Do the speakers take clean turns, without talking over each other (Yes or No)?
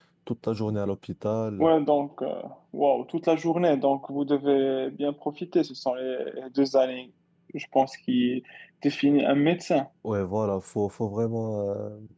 Yes